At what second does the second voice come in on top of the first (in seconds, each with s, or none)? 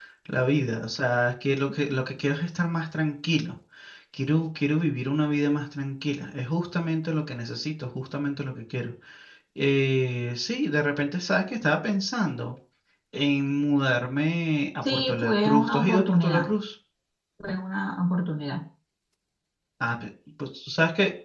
14.8 s